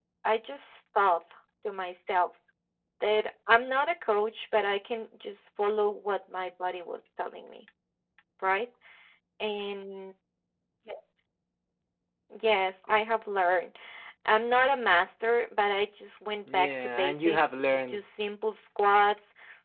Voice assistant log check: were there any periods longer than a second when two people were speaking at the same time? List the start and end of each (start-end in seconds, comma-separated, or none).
16.5-18.0